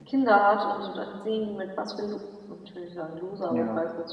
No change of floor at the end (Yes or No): Yes